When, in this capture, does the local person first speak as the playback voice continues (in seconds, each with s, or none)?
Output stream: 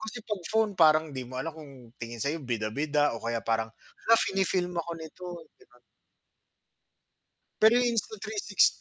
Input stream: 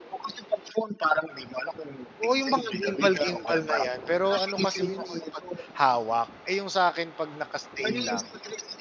2.2 s